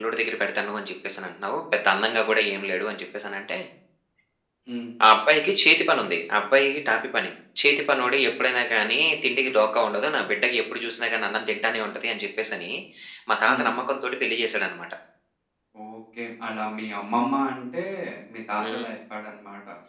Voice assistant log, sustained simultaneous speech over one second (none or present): none